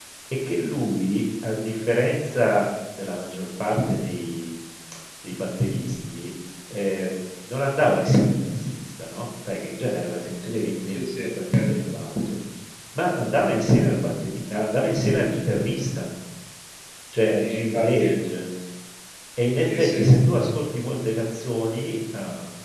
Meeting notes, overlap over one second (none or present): present